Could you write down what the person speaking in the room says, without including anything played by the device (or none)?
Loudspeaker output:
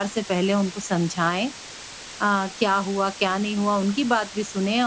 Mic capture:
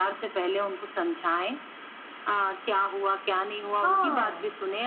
हाँ,